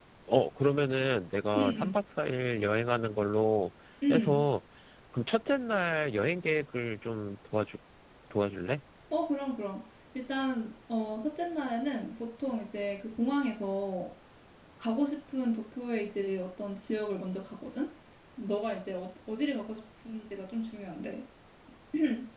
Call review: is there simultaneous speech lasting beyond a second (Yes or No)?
No